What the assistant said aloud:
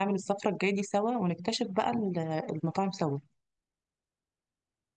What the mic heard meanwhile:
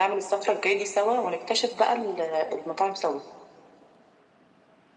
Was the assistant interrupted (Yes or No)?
No